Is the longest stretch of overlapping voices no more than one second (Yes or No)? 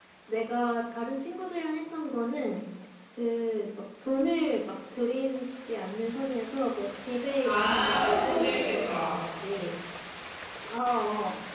No